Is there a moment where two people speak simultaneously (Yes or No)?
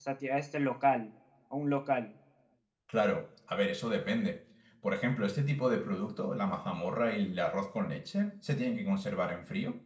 No